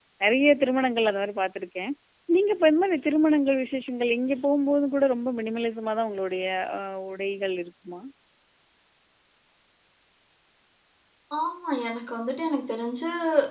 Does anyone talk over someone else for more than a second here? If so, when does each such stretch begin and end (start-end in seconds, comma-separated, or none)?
none